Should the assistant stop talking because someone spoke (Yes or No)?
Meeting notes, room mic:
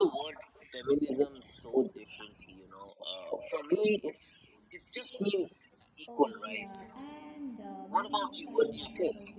Yes